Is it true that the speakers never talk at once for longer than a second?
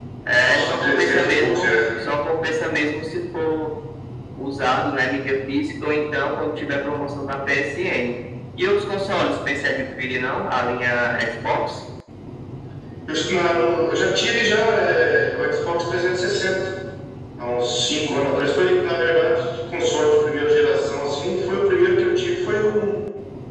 No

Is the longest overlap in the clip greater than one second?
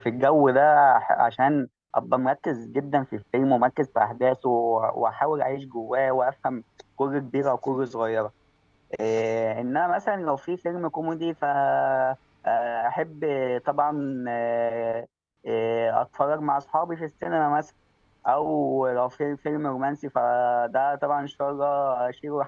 No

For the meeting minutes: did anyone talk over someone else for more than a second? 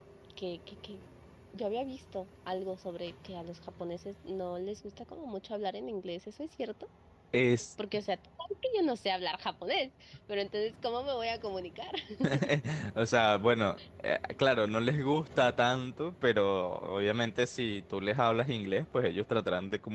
No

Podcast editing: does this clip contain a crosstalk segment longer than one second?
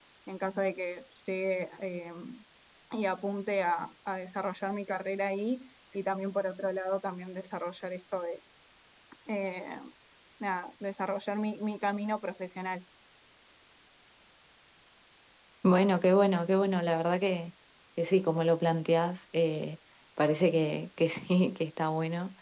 No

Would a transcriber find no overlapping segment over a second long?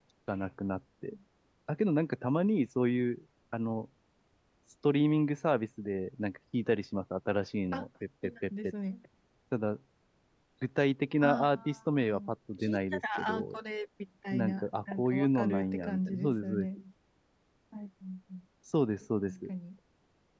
No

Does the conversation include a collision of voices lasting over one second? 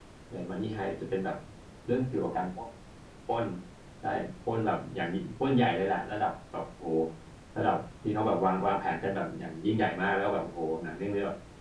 No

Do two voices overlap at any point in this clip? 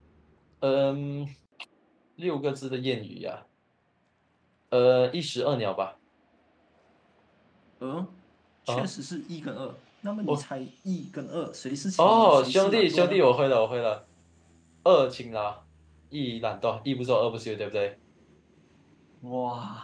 Yes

